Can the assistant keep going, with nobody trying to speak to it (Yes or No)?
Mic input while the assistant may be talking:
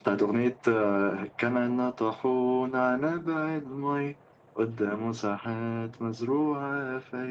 Yes